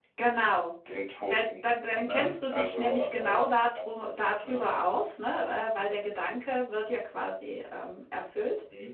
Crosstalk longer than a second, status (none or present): present